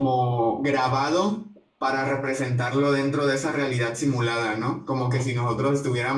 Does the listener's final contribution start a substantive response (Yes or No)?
No